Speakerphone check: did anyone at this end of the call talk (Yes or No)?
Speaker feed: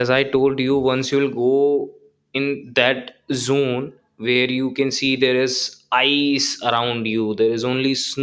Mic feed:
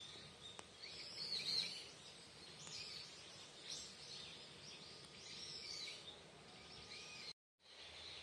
No